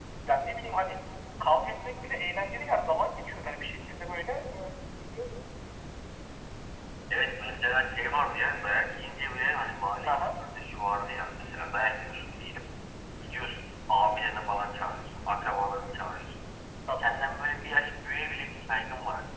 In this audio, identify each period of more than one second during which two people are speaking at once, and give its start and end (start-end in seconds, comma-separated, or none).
none